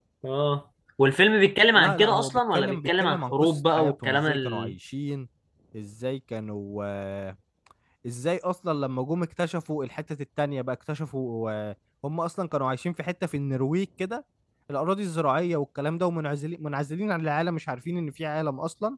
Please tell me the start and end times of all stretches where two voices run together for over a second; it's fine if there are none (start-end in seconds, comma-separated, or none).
1.7-4.7